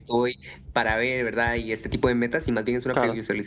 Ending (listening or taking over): listening